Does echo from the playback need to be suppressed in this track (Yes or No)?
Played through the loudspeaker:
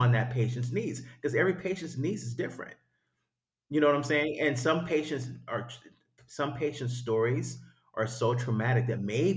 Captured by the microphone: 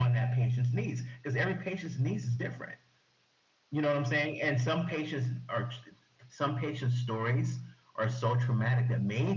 Yes